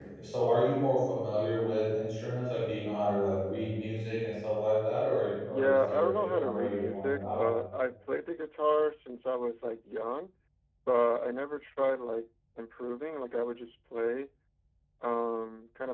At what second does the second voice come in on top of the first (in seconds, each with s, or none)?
5.5 s